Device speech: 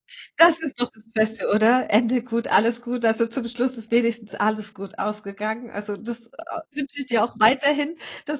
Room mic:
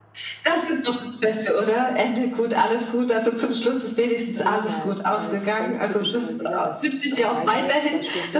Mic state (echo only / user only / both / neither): both